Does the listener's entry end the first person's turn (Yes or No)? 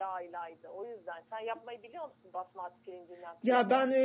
Yes